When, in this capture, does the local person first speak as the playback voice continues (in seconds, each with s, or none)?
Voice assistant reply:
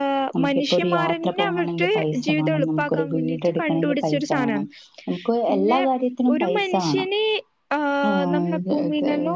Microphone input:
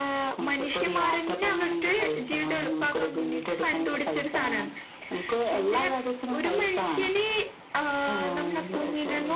none